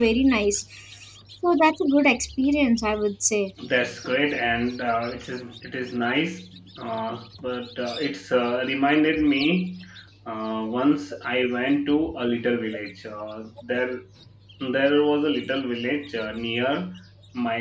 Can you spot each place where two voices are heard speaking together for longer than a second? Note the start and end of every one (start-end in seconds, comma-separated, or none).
none